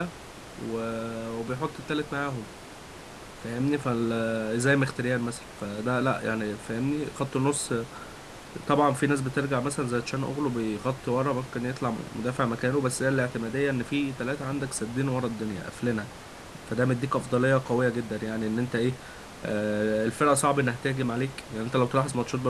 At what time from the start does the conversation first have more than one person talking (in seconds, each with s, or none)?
none